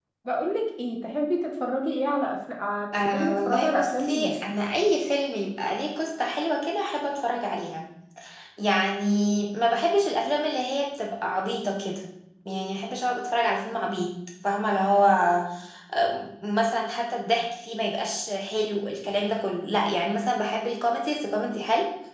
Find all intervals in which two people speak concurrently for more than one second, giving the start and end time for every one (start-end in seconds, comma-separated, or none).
3.0-4.3